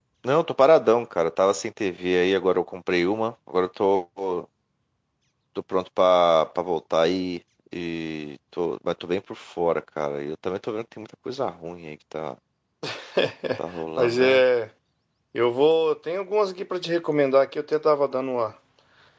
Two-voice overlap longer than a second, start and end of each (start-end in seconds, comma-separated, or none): none